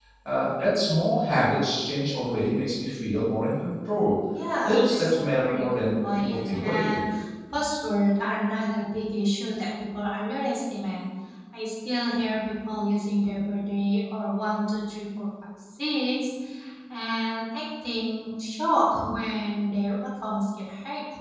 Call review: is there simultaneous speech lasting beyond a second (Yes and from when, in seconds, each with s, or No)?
Yes, from 4.6 s